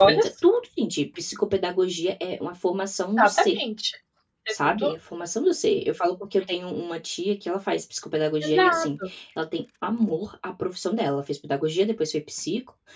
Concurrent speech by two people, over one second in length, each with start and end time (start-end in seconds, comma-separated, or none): none